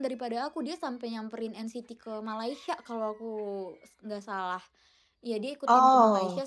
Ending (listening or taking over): listening